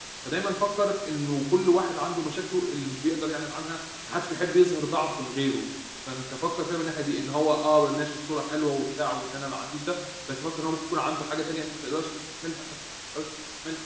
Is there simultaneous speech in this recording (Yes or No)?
No